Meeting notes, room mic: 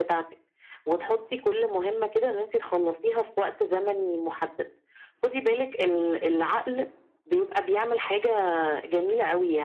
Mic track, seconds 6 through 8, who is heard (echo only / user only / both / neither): echo only